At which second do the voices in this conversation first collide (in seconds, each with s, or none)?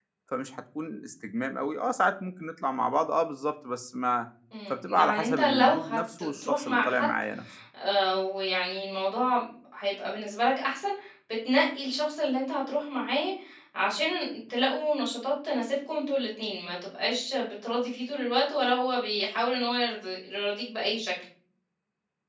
4.7 s